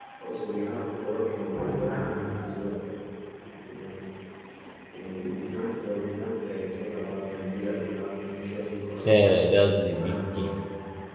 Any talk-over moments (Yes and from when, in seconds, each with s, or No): Yes, from 9.1 s